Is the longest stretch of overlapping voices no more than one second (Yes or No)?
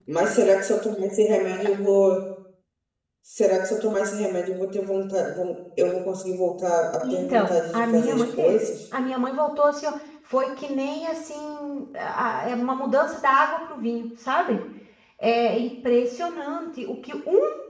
No